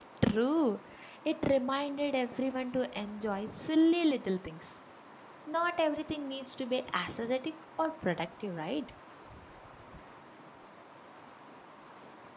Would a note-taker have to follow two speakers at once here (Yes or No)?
No